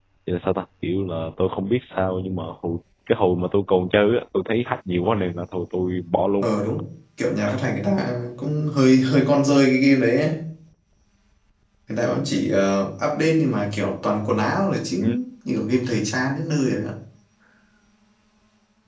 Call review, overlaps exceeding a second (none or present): none